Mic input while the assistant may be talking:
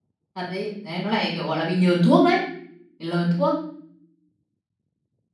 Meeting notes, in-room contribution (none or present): present